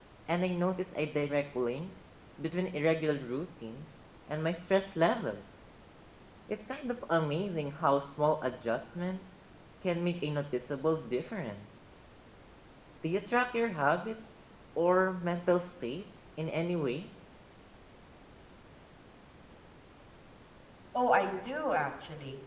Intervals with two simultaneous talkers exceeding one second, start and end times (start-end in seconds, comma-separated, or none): none